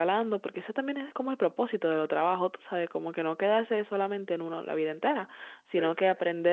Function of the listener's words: listening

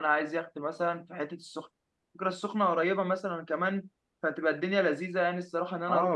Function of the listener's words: taking over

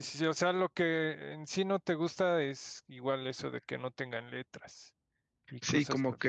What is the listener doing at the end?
taking over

